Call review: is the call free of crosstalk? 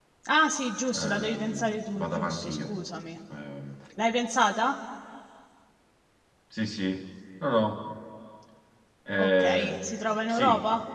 No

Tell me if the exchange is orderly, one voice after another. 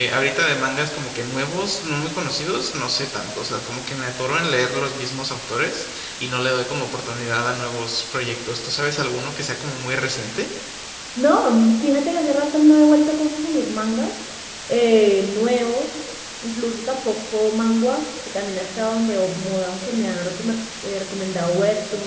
Yes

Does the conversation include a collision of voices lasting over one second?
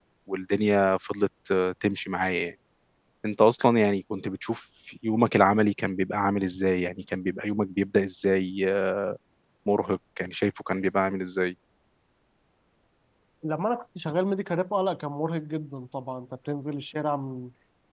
No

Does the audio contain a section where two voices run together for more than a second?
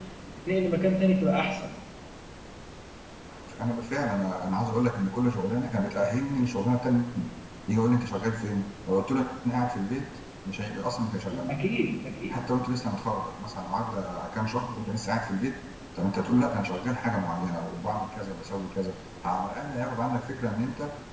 No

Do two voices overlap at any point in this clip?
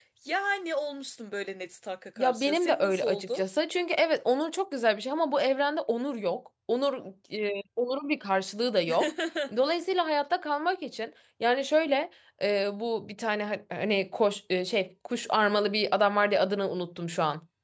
Yes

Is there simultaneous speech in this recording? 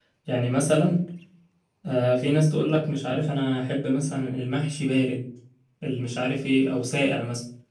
No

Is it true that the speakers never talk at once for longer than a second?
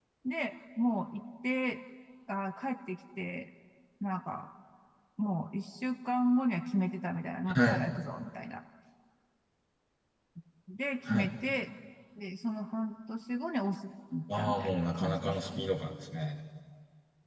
No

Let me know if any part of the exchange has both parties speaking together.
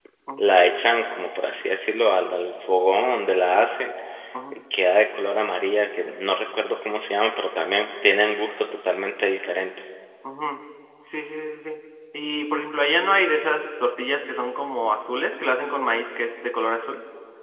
No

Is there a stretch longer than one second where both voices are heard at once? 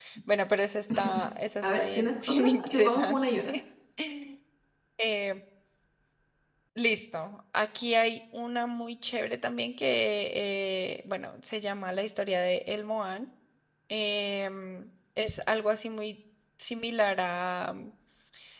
Yes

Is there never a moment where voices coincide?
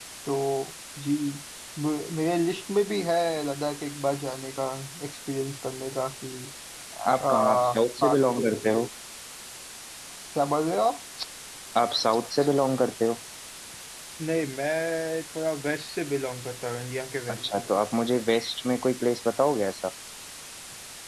No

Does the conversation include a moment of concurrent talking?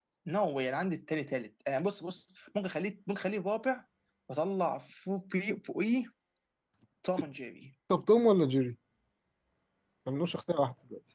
No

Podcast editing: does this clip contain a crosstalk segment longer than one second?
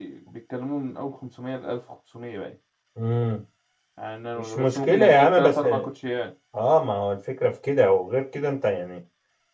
Yes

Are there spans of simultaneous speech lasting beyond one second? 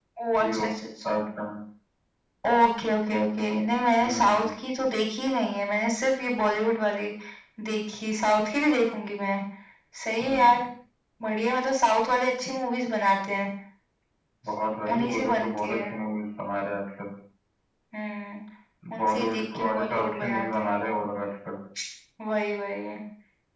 Yes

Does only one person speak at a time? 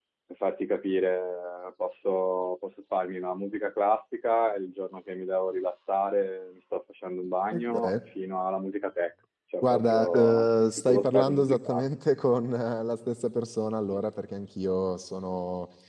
No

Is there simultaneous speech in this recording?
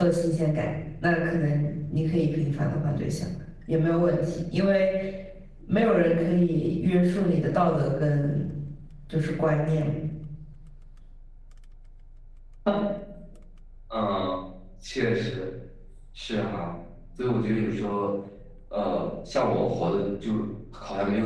No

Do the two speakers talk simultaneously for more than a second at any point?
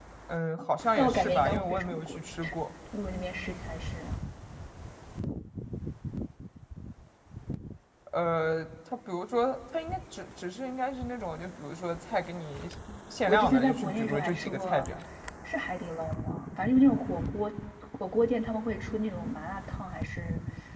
Yes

